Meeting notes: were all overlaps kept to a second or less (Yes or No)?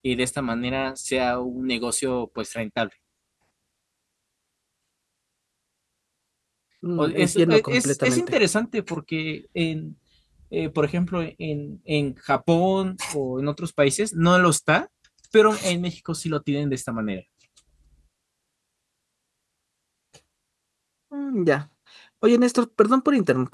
No